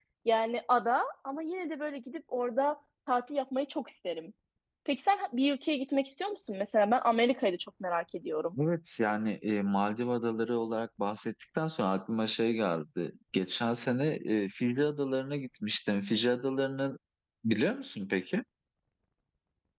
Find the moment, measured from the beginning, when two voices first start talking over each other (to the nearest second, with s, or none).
none